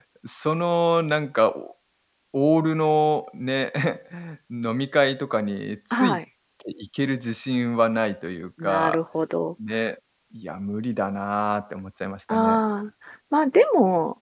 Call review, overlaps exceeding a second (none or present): none